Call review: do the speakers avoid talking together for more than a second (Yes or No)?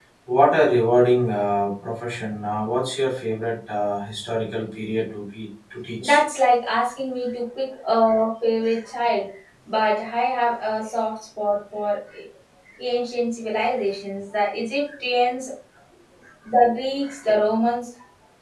Yes